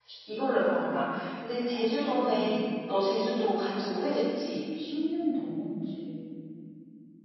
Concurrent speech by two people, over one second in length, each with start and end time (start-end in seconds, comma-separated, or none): none